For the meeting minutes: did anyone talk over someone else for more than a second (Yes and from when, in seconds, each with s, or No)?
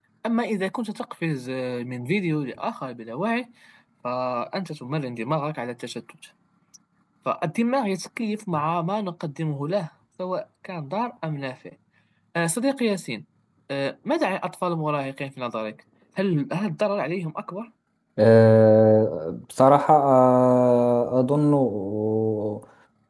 No